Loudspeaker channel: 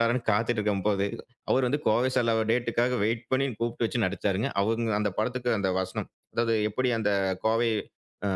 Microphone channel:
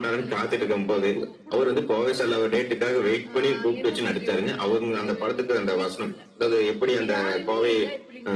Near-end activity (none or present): present